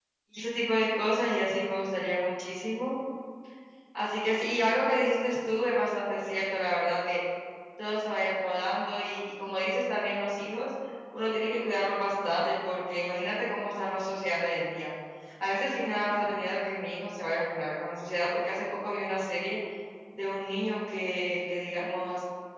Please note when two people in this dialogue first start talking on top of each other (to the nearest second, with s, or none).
none